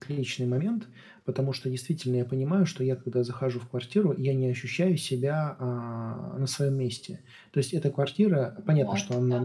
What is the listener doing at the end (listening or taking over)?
listening